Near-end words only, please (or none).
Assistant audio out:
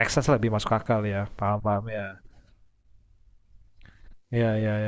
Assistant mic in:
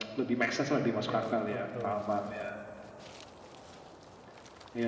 hmm ya betul betul